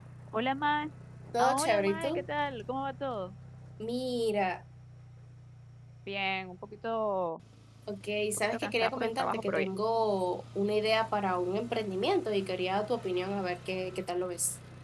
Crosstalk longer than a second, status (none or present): present